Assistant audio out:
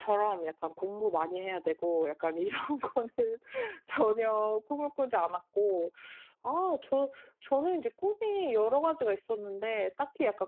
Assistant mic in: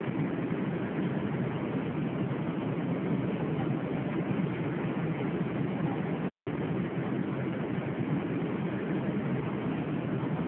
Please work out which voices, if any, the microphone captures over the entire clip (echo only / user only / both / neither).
neither